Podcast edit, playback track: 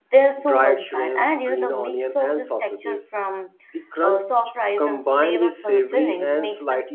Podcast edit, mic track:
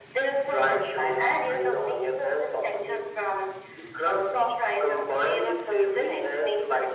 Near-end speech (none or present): none